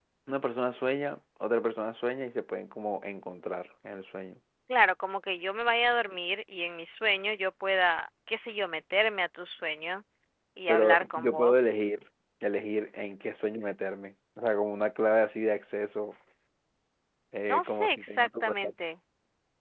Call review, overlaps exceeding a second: present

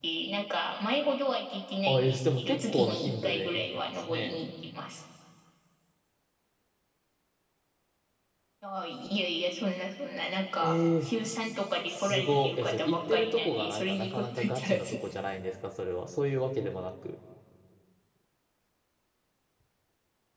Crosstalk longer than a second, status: present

